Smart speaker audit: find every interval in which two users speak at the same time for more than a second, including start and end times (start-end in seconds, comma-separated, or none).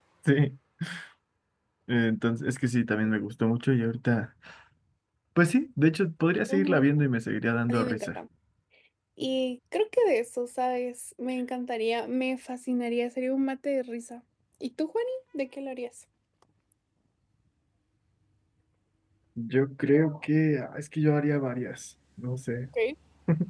none